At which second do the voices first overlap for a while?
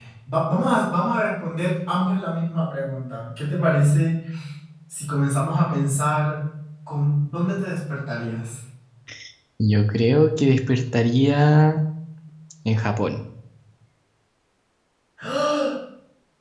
none

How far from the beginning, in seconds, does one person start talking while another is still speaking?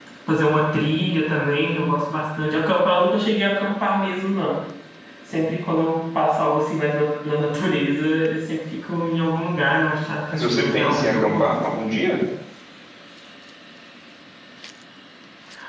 10.3 s

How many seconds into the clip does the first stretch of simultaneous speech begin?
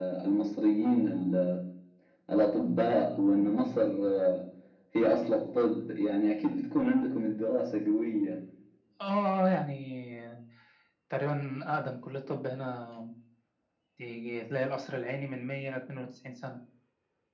none

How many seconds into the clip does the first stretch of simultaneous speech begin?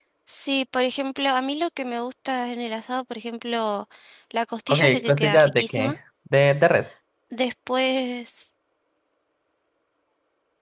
4.7 s

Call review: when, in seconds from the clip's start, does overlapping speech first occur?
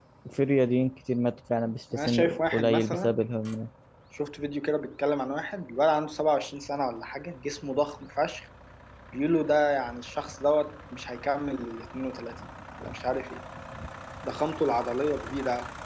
1.9 s

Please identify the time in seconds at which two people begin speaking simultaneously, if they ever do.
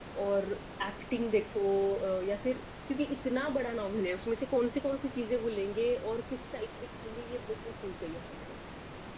none

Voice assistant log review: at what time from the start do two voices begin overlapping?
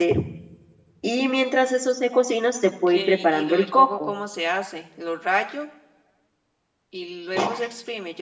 2.9 s

